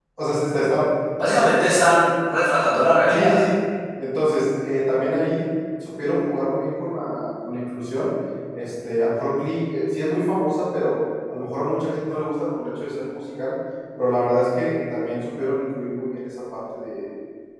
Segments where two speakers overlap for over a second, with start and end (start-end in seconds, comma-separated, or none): none